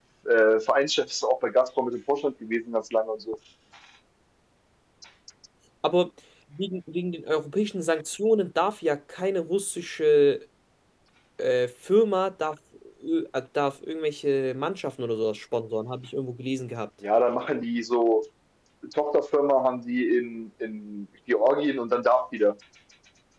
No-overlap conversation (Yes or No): Yes